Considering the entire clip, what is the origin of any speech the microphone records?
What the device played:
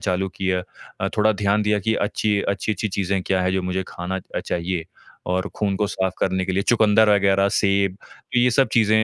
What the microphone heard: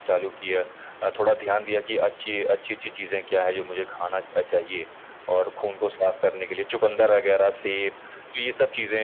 echo only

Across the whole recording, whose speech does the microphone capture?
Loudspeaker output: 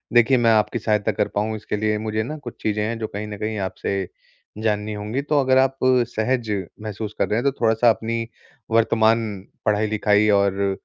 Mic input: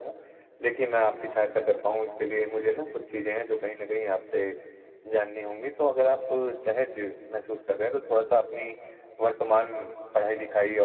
echo only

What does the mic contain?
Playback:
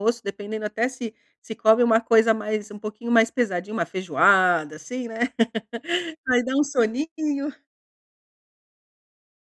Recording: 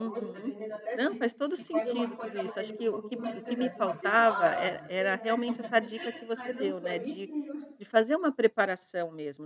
both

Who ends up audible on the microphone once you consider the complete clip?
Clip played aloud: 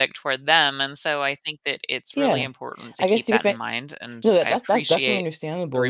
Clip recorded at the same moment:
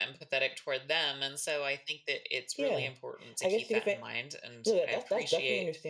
echo only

